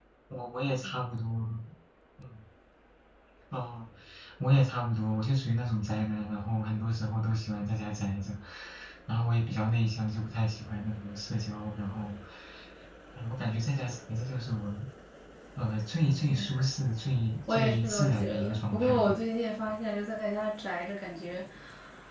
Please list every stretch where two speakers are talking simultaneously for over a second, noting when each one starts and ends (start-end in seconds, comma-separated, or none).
17.5-19.1